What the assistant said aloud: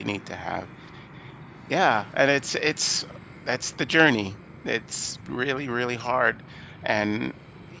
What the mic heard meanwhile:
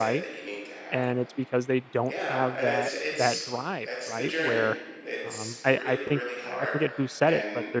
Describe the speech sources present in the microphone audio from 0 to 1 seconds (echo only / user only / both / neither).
both